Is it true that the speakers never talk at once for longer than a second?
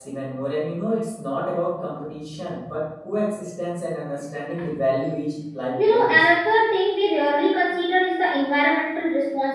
Yes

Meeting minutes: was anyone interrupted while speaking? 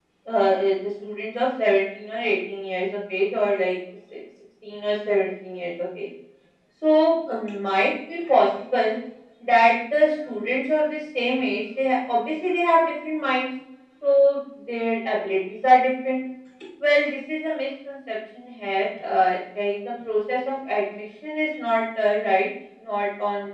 No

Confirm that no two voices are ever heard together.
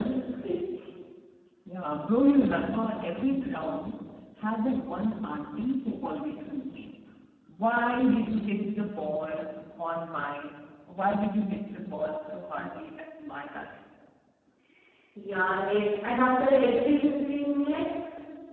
Yes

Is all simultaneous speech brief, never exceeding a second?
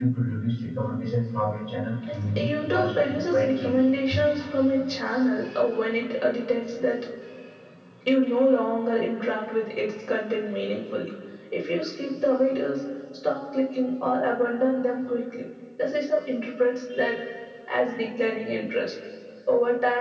No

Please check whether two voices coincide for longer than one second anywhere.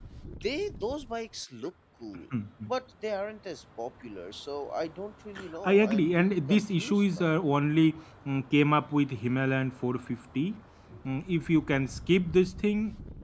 Yes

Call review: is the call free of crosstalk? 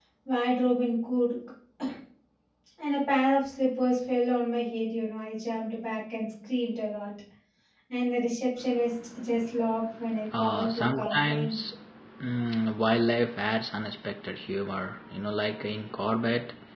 No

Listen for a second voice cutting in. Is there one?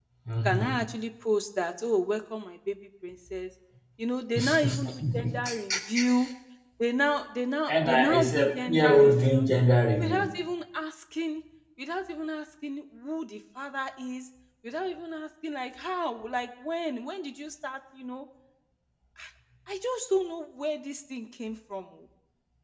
Yes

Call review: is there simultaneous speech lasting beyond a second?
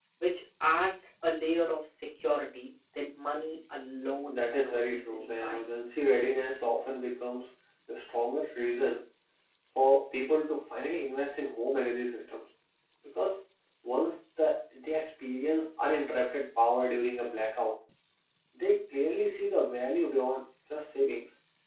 Yes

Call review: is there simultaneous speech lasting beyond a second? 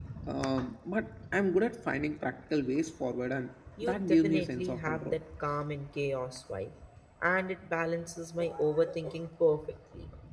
Yes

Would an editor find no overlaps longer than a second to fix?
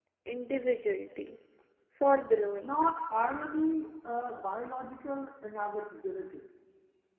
Yes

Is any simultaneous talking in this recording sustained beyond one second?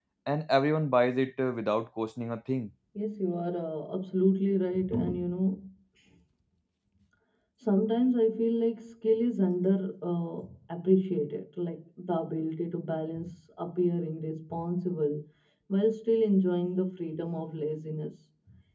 No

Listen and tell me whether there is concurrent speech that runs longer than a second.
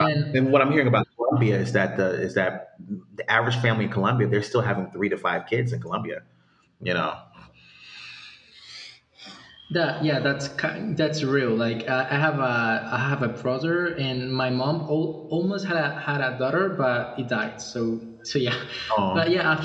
No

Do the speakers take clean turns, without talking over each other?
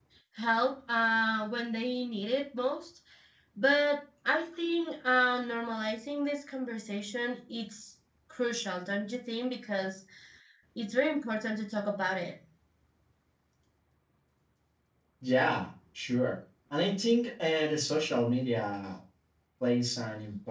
Yes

